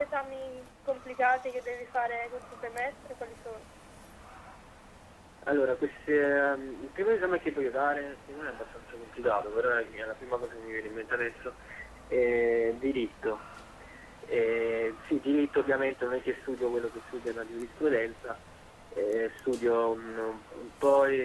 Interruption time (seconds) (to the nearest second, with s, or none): none